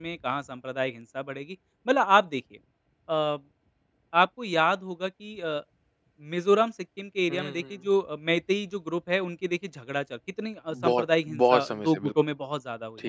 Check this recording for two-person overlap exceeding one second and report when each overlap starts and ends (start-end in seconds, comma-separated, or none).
10.7-12.1